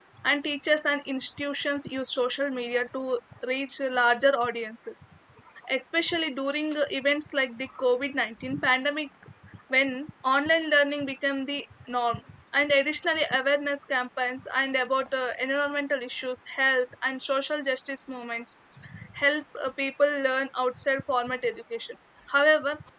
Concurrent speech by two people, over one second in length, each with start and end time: none

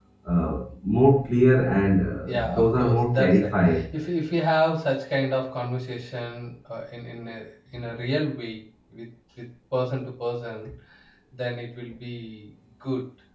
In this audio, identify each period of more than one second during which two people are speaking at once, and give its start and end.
2.2-3.8

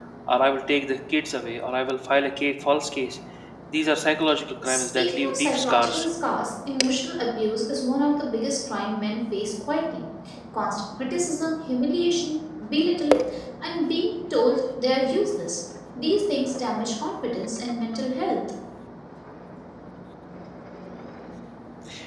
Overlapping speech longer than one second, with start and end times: 4.6-6.1

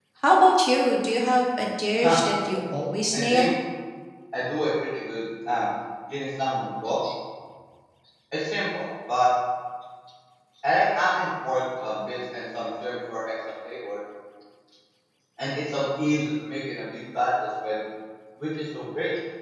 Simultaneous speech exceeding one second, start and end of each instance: none

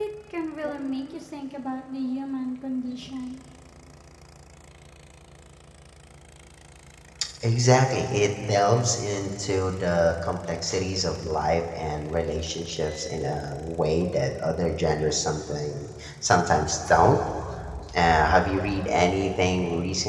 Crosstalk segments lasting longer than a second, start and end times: none

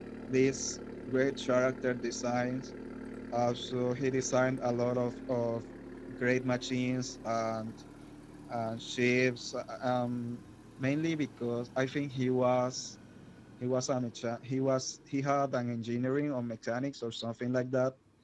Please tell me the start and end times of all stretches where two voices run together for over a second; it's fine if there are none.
none

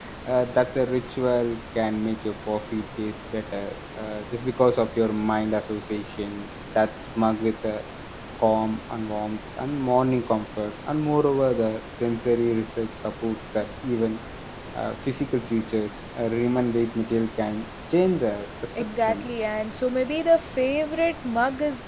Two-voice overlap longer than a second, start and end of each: none

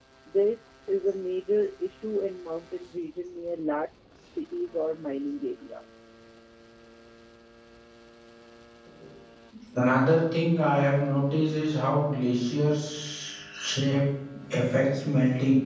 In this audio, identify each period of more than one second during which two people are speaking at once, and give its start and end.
none

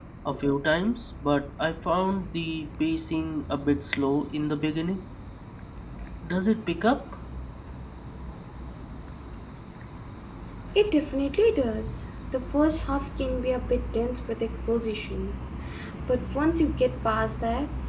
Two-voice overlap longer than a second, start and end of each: none

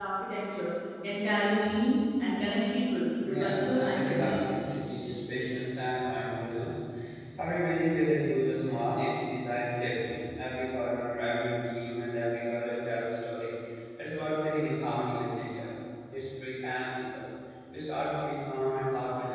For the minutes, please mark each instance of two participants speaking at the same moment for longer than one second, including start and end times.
3.3-4.5

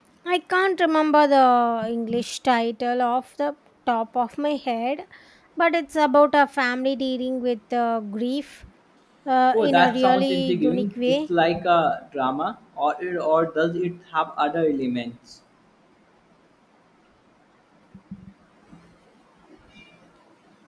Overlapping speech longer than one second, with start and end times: 9.5-11.2

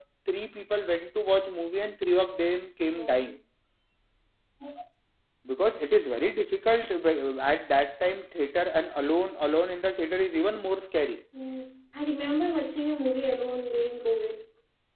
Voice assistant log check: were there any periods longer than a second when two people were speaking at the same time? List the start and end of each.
none

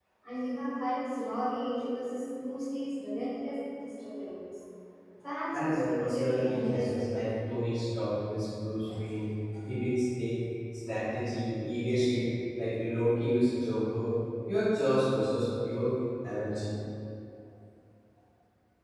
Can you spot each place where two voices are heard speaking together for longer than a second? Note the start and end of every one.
5.5-7.1

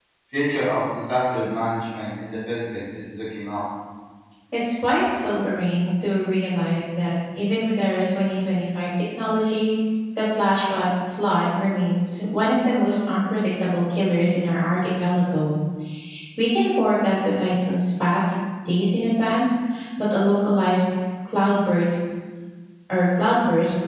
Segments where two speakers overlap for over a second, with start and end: none

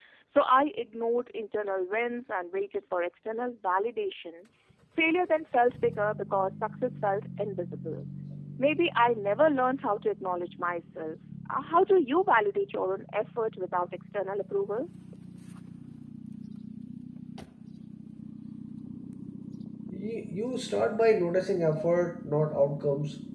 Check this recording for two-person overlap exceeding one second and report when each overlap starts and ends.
none

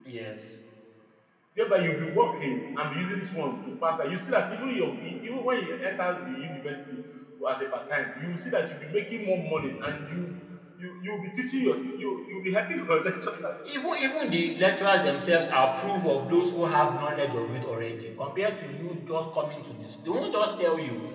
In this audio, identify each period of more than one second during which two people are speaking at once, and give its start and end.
none

